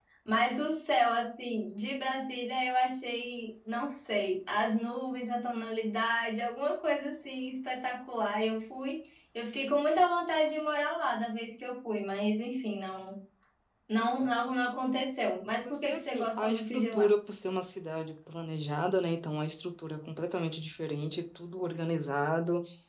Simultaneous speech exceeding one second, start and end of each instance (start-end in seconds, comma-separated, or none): 15.6-17.1